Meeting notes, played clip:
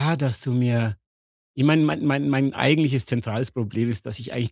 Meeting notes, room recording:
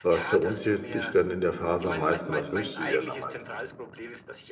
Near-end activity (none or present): present